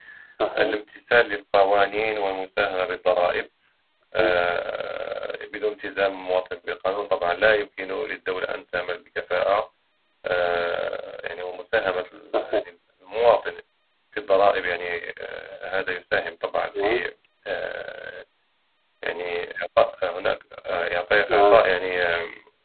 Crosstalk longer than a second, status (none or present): none